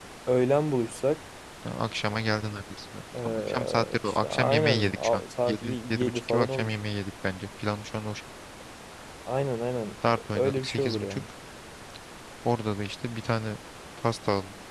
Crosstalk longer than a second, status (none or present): present